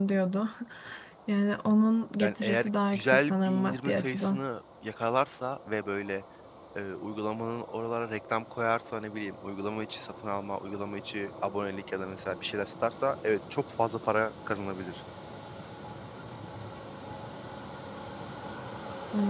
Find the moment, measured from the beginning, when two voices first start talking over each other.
2 s

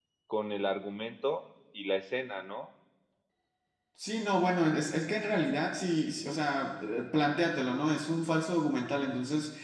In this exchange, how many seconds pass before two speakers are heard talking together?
none

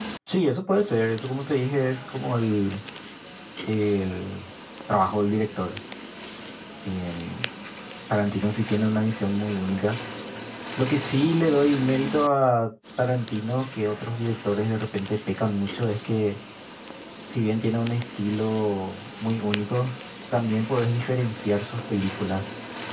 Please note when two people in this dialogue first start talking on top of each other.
none

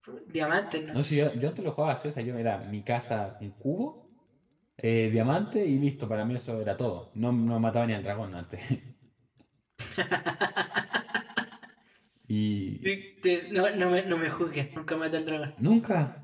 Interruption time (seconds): none

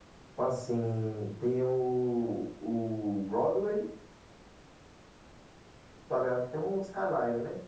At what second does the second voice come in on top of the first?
none

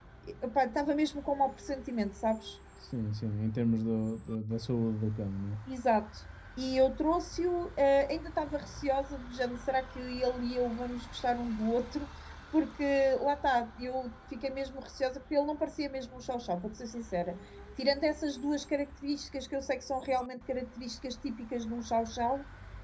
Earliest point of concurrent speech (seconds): none

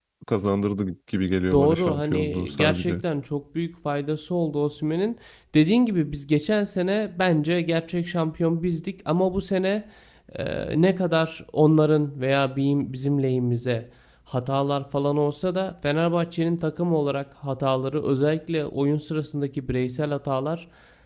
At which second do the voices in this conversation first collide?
2 s

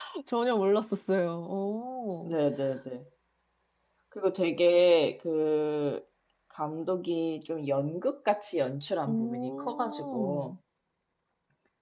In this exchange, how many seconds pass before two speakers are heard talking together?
9 s

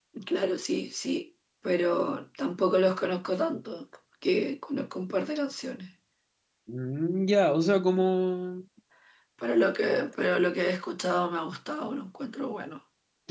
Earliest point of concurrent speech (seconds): none

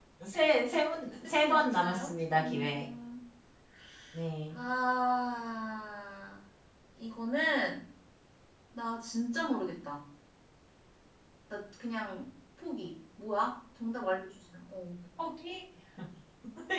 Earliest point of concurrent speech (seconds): 1 s

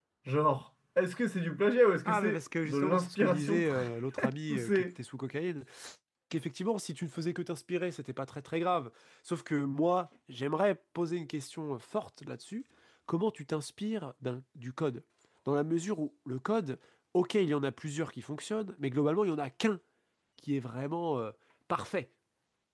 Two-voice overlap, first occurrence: 2 s

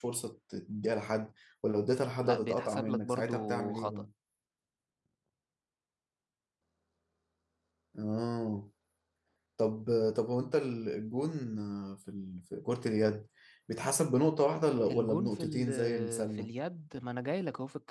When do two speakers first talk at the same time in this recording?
2 s

